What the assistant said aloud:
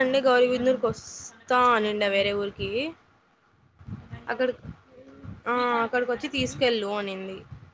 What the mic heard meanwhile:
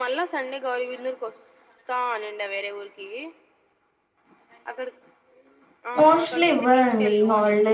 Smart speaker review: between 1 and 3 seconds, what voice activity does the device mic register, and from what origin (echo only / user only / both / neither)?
echo only